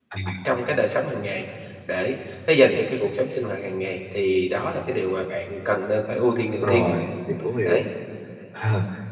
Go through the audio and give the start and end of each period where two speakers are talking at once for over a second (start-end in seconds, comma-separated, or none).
none